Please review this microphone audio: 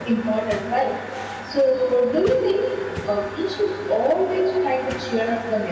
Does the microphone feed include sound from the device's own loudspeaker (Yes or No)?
No